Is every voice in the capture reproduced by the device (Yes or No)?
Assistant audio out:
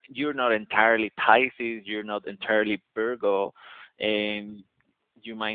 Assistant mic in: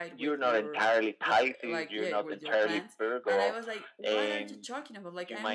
No